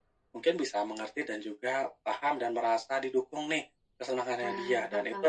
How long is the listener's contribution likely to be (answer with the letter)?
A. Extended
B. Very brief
B